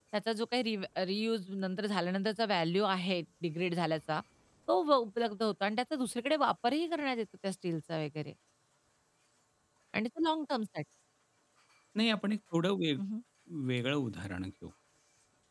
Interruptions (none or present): none